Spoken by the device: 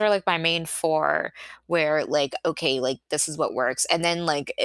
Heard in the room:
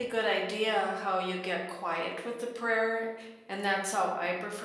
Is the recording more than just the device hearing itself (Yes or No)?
Yes